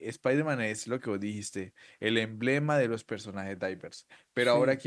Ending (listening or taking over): listening